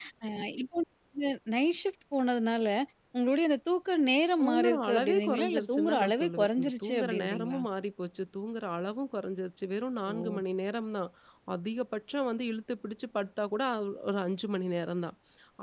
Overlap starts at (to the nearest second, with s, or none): 4 s